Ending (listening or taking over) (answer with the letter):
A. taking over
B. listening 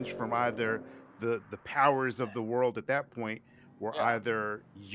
B